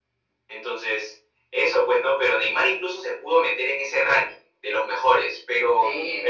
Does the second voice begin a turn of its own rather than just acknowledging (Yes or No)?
Yes